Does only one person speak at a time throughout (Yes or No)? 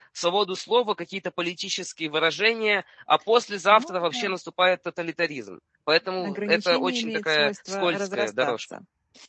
No